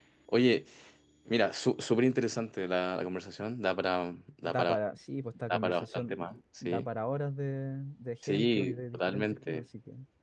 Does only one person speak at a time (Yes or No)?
No